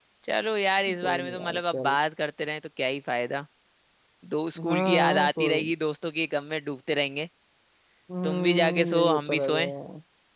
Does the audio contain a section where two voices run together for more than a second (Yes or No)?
Yes